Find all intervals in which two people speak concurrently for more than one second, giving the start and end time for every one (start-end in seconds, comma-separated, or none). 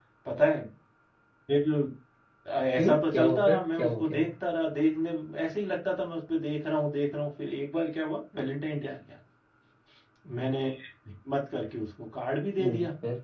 2.8-4.3